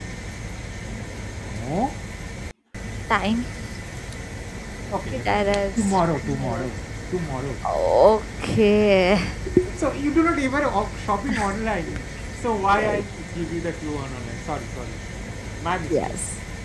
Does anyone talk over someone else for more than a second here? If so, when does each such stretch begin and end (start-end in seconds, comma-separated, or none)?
5.2-6.7